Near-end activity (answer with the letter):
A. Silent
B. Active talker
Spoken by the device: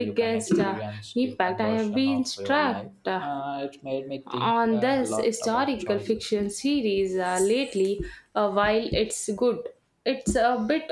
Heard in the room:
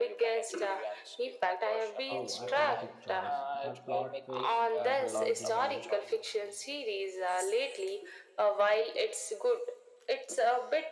B